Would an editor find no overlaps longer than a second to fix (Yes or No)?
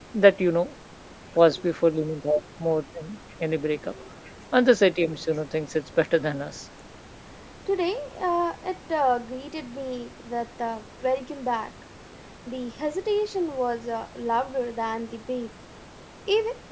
Yes